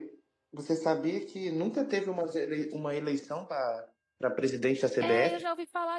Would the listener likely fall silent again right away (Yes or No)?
No